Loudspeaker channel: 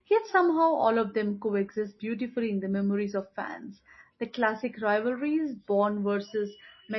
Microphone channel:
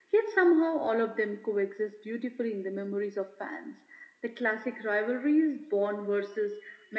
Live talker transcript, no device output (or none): none